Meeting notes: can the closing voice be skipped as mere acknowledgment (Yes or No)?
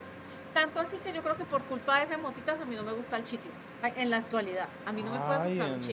No